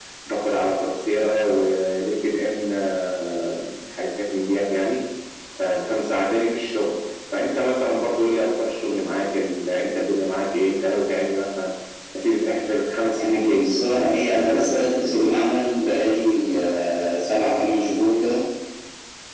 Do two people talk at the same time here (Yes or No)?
Yes